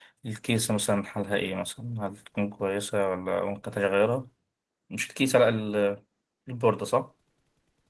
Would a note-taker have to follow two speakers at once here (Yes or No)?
No